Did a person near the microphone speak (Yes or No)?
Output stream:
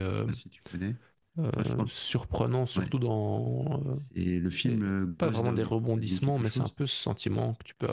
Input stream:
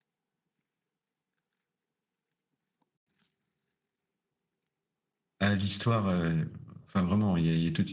Yes